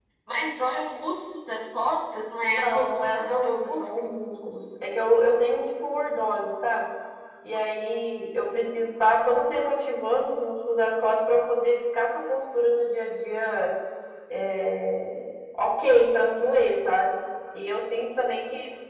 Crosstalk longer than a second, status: present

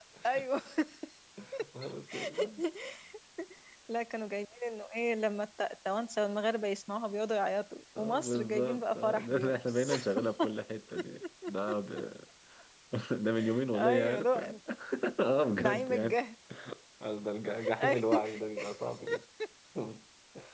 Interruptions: present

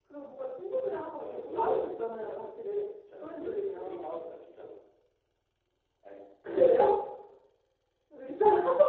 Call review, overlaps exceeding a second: present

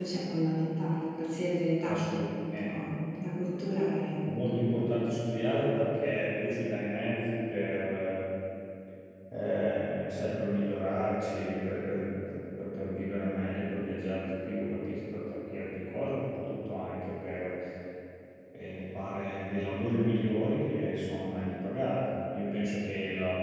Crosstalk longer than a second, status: none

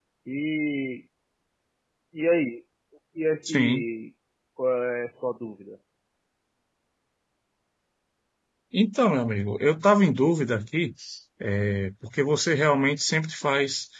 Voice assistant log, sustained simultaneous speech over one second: none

